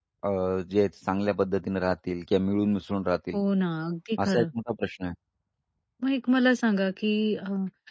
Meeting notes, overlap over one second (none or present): none